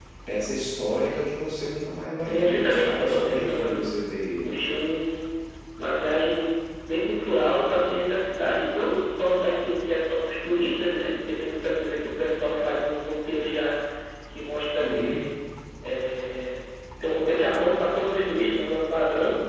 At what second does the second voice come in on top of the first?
2.2 s

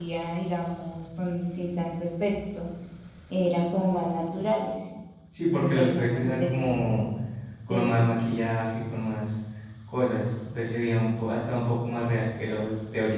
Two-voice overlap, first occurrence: 5.5 s

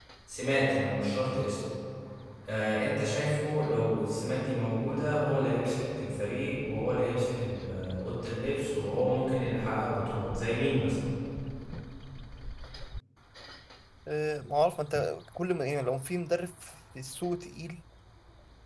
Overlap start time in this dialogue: none

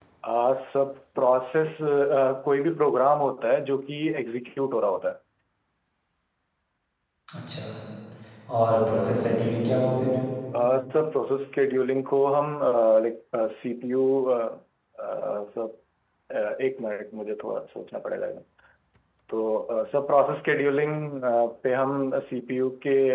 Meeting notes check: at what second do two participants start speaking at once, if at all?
none

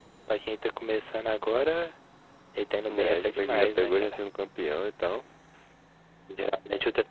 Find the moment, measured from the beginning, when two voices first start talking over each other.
2.9 s

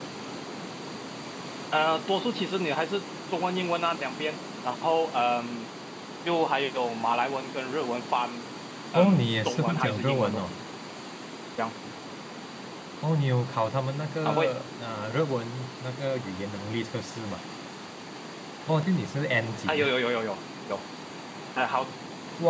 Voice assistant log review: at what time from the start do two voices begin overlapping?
8.9 s

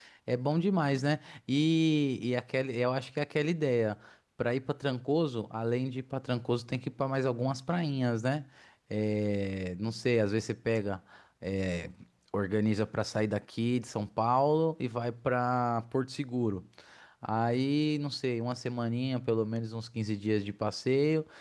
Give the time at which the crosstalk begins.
none

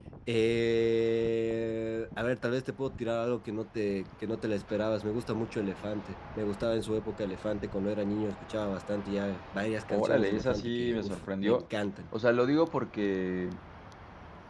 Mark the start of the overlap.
9.9 s

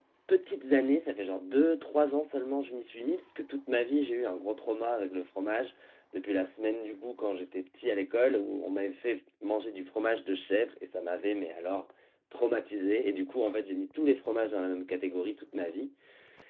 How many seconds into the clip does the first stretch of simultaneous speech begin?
none

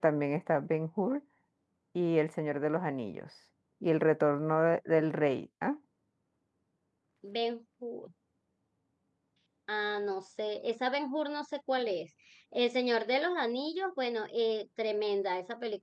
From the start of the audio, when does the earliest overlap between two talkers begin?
none

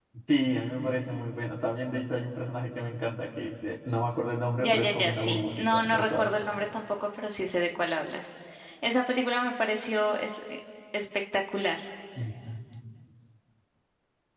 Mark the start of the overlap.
4.6 s

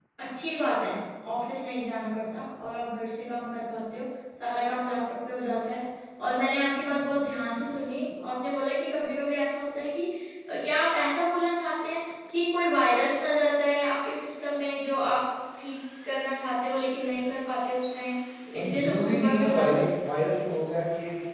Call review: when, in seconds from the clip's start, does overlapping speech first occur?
18.5 s

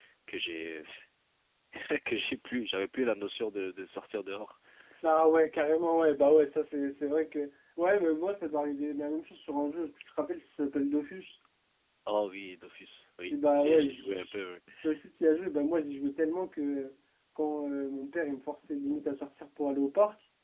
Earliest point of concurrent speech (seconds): 13.3 s

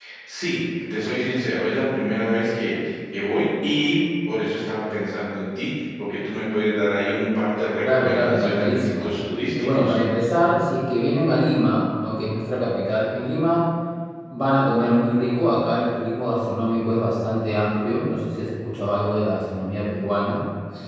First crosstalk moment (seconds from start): 7.8 s

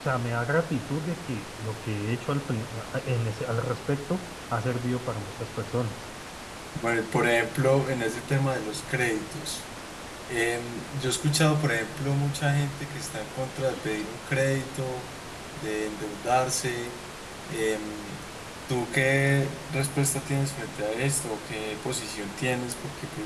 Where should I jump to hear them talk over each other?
none

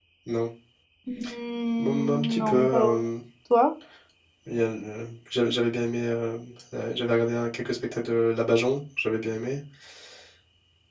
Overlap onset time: 1.8 s

